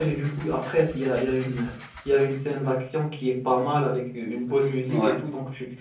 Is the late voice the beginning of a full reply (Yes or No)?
No